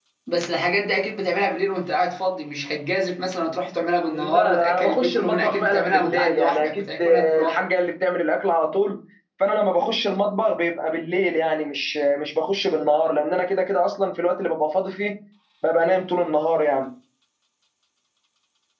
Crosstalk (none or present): present